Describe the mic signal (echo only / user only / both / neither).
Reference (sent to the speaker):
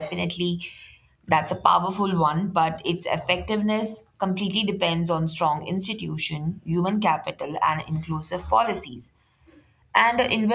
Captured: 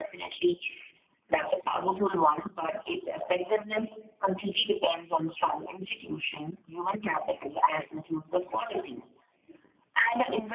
echo only